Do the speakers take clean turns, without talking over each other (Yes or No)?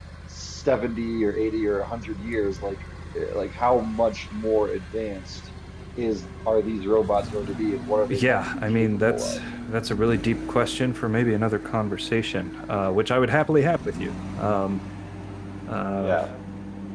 No